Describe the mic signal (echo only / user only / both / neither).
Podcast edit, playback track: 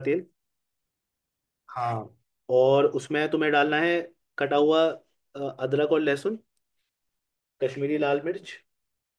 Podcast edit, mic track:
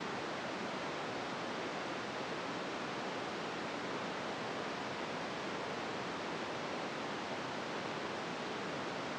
neither